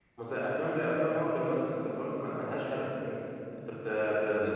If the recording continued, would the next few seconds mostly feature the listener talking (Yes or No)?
No